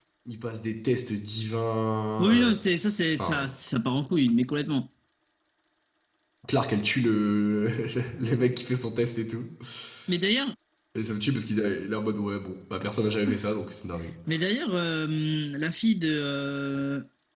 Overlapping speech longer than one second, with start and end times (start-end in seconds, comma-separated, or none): none